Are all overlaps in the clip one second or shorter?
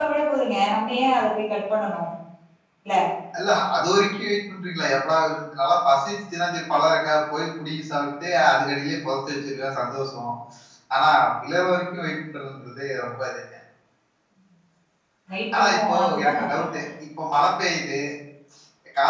No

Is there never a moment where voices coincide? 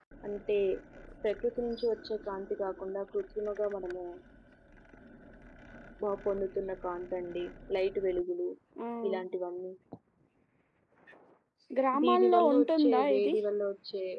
No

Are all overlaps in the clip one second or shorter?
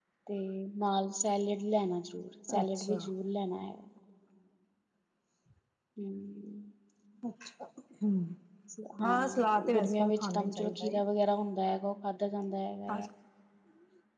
No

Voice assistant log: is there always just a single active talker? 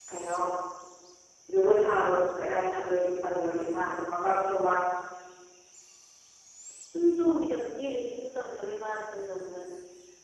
Yes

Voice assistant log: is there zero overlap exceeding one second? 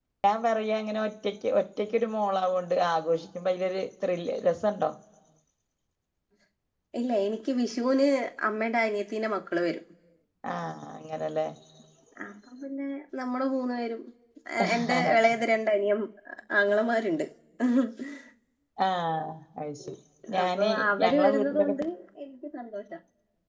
No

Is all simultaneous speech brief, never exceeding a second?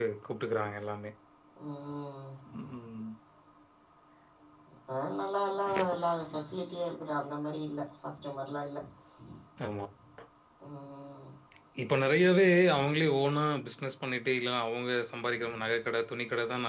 Yes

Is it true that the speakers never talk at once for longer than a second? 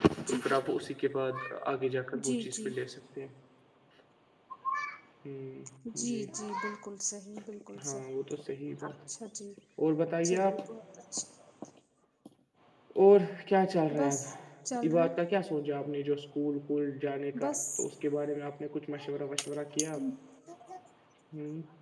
Yes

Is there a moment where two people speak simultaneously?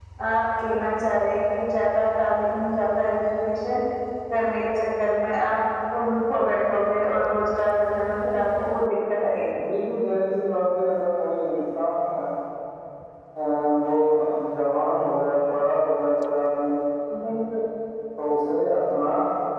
No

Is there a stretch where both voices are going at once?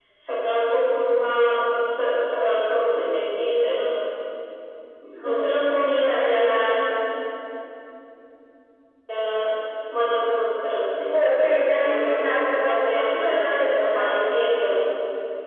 Yes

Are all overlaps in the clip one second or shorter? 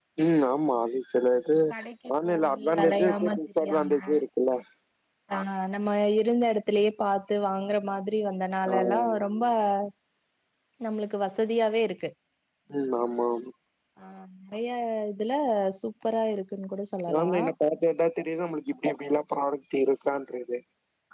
No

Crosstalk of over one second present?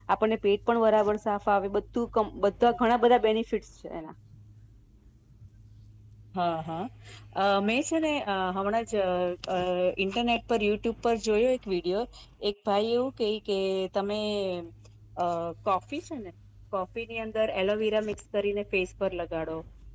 No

